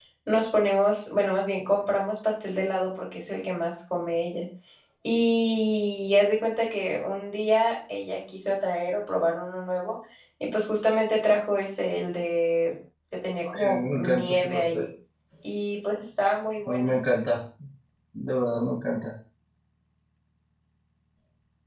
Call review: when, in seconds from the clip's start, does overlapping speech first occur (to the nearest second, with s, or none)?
14 s